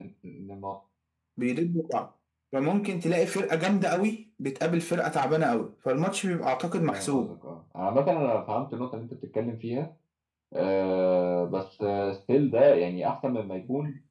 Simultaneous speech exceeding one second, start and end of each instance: none

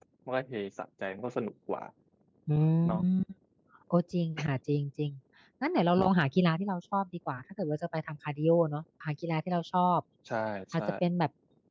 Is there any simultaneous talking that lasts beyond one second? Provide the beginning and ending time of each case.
none

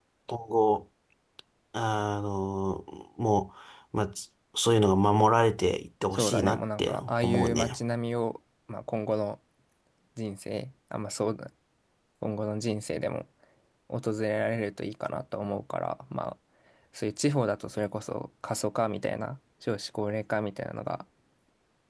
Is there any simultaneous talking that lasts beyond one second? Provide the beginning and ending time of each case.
6.1-7.8

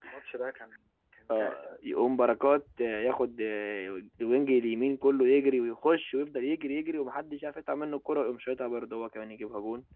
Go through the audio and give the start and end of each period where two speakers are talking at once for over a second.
none

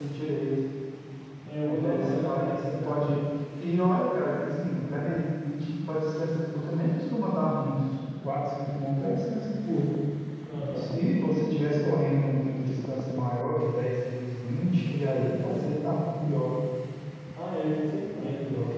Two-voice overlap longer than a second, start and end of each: 1.6-3.0

